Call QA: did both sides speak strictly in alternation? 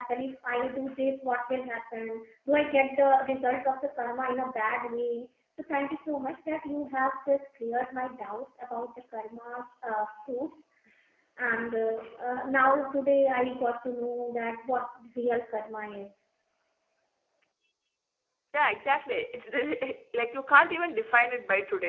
Yes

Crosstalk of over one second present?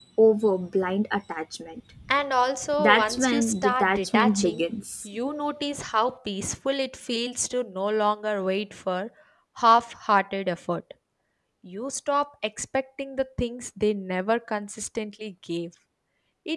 Yes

